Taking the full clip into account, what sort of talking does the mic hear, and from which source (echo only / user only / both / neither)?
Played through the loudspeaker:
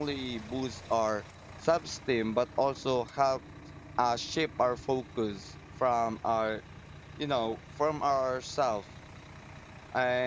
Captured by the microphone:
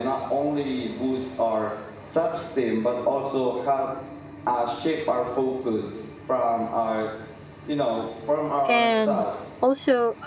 both